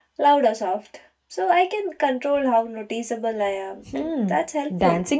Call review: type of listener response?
taking over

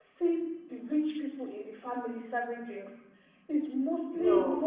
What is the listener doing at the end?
listening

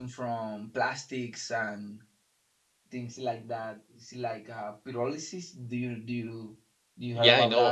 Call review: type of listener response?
taking over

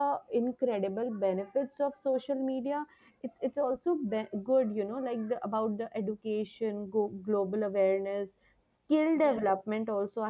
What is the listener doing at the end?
listening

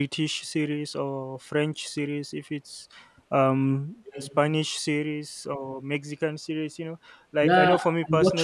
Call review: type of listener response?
taking over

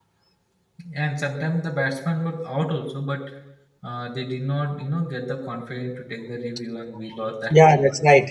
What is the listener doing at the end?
taking over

